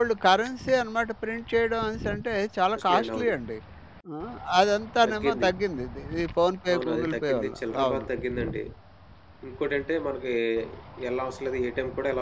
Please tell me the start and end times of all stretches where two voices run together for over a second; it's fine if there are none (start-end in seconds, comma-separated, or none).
6.7-8.1